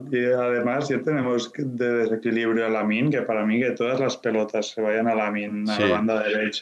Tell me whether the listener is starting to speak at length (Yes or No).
No